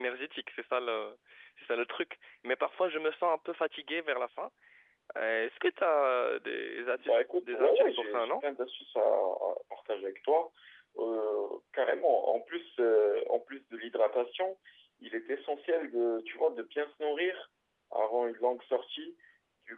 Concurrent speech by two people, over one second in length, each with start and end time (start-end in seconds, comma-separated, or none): 7.0-8.3